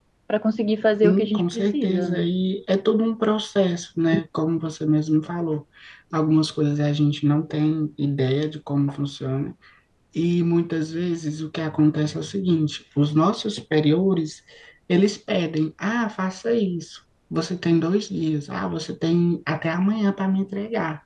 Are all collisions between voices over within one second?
No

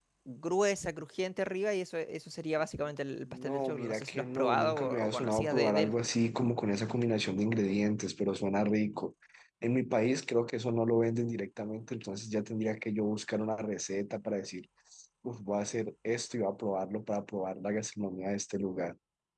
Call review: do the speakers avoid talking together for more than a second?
No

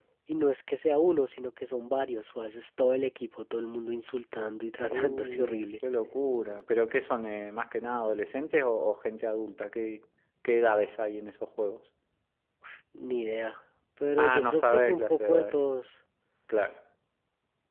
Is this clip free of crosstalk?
No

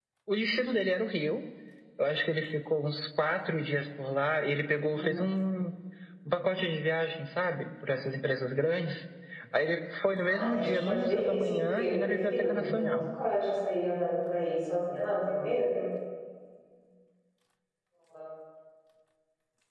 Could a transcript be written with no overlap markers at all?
No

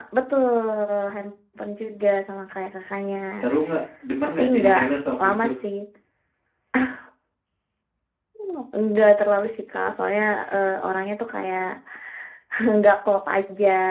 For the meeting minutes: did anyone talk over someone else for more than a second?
No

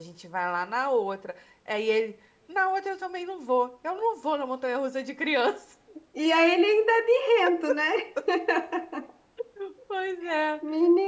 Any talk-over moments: No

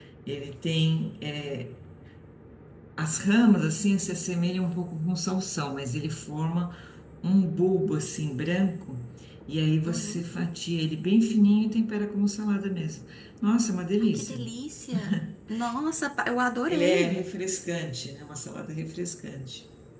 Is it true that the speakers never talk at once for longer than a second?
Yes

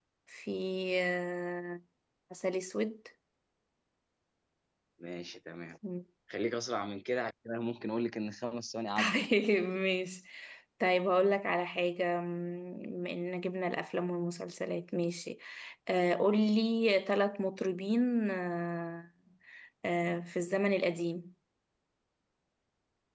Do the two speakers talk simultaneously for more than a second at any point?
No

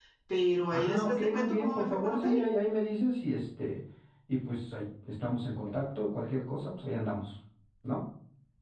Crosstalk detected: Yes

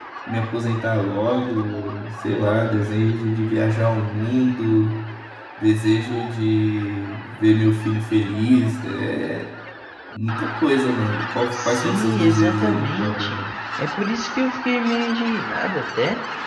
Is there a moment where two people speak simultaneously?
Yes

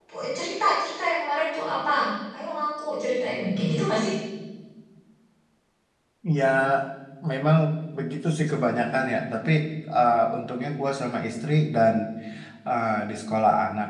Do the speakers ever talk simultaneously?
No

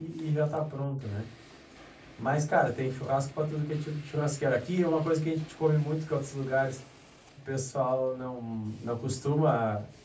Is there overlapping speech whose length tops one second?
No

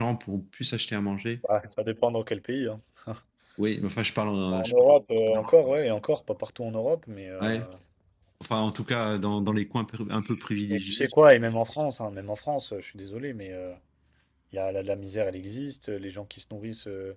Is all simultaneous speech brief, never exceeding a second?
Yes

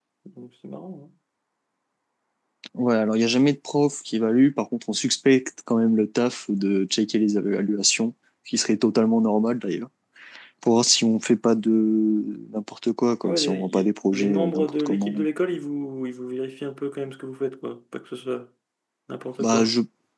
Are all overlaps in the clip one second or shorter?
No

